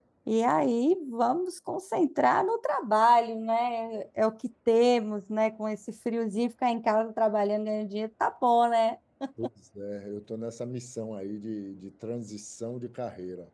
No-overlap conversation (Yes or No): Yes